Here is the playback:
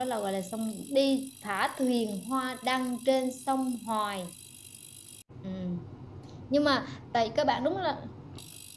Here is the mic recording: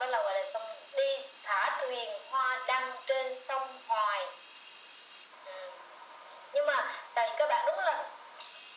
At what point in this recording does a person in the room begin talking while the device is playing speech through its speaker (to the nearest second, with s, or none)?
none